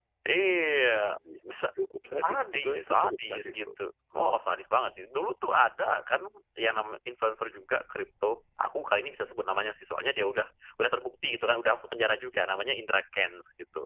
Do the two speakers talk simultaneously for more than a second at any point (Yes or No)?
Yes